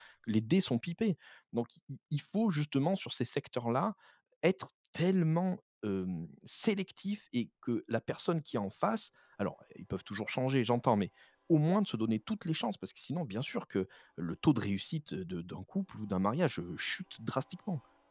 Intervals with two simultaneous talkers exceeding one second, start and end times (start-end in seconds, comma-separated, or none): none